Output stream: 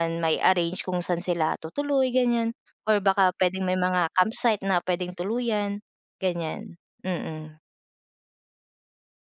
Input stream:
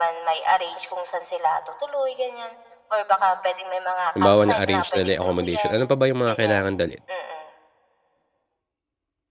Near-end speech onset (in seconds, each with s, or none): 4.1 s